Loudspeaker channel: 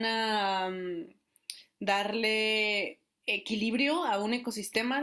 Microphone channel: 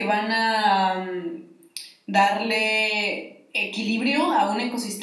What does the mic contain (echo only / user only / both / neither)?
echo only